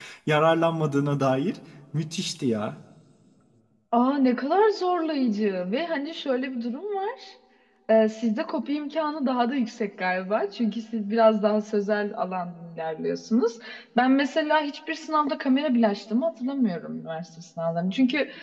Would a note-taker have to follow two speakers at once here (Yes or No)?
No